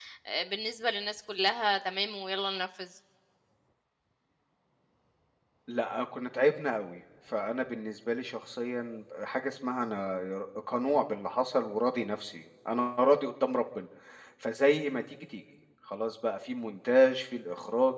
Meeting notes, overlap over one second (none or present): none